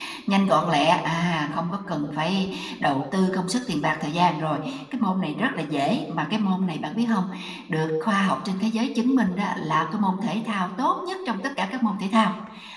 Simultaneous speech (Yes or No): No